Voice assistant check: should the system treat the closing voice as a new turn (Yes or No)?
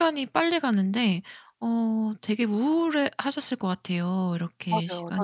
Yes